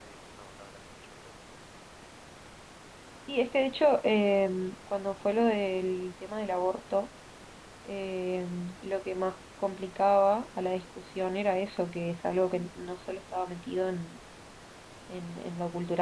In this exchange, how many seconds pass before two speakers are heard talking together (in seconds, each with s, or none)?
none